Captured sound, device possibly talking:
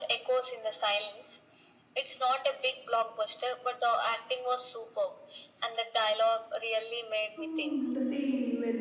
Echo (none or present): present